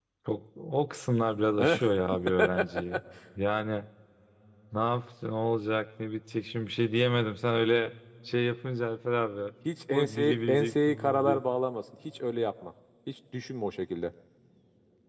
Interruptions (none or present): present